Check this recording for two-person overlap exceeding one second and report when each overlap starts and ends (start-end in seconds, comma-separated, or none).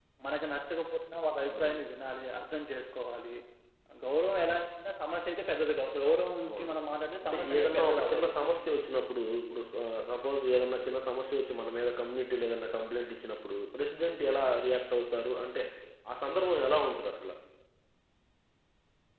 7.2-8.5